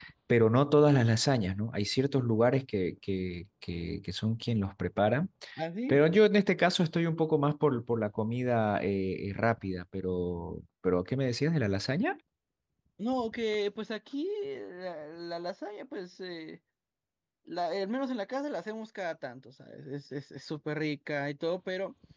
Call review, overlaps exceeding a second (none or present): none